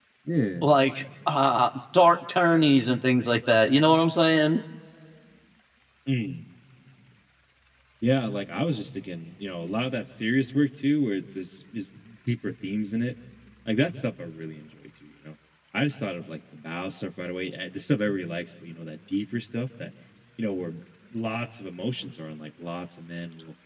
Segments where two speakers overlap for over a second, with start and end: none

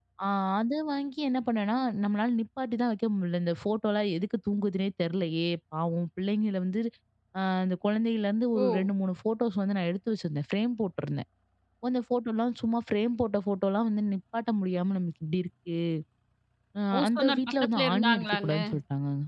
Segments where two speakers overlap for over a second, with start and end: 16.9-18.5

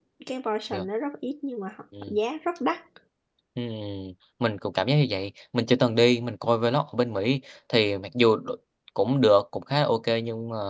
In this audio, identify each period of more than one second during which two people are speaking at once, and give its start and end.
none

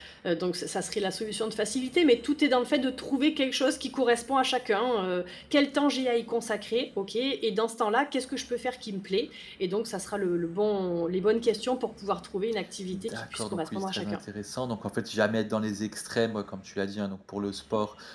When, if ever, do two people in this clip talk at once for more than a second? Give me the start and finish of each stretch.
12.9-14.2

